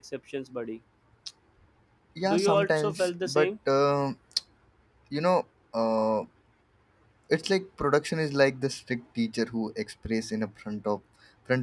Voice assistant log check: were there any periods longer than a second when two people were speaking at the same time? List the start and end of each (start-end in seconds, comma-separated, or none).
2.3-3.5